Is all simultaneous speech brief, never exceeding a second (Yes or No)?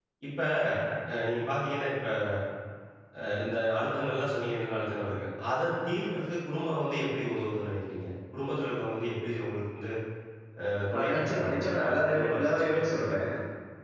No